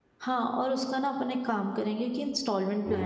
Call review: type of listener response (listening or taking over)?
listening